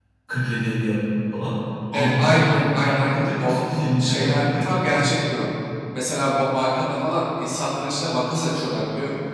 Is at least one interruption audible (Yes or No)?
Yes